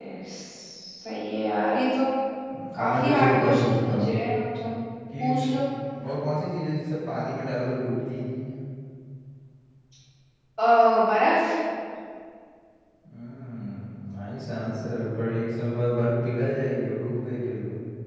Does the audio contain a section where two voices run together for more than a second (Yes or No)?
Yes